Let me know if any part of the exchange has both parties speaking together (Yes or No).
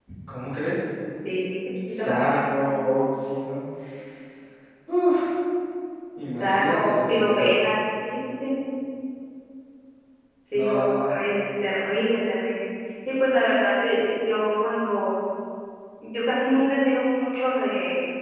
Yes